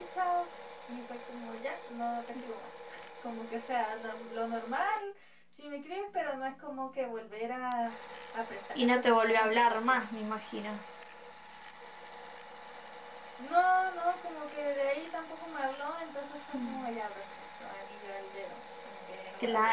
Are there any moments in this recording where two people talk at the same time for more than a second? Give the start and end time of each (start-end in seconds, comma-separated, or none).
8.8-10.1